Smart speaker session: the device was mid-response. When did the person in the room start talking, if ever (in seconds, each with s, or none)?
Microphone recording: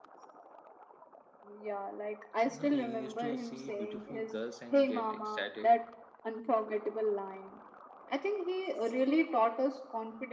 2.4 s